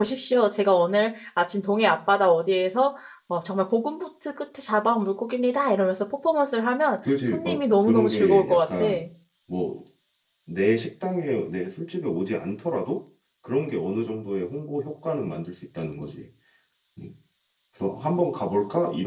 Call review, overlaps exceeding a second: present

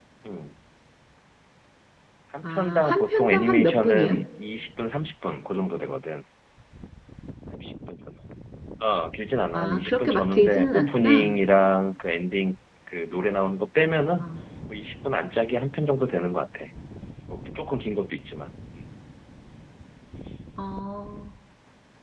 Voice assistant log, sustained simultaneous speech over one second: present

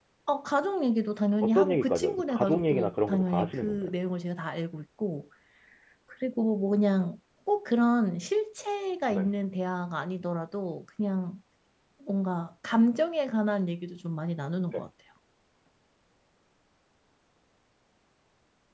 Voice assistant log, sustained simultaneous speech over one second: present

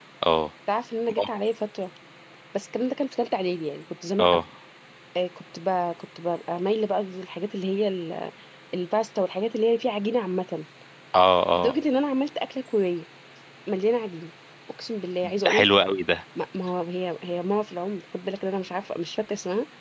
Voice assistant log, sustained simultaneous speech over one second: none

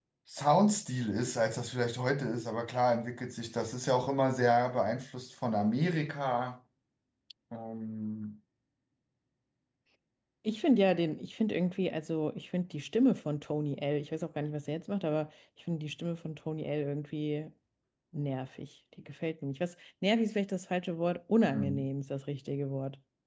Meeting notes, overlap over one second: none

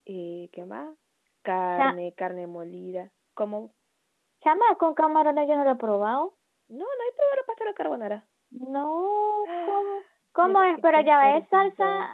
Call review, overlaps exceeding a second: present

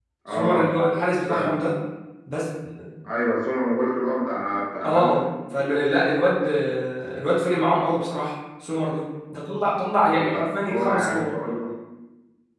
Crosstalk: present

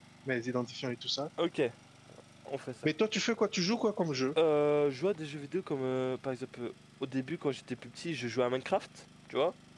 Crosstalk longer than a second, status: none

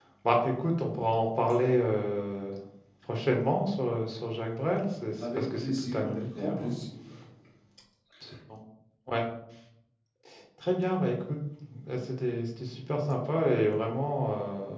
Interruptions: present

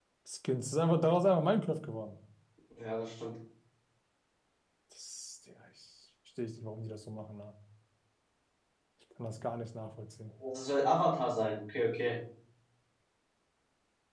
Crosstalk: none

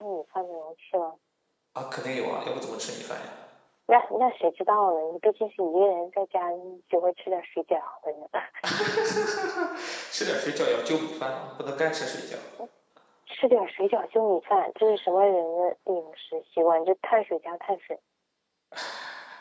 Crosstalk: none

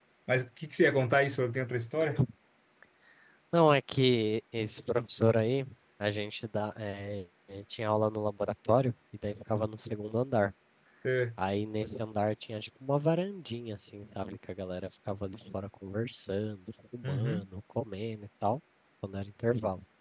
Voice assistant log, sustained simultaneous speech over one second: none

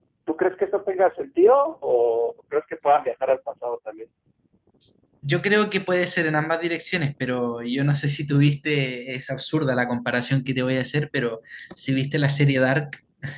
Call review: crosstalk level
none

